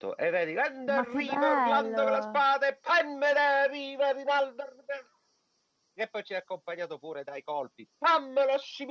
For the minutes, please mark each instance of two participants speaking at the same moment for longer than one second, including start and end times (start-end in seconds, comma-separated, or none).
0.9-2.4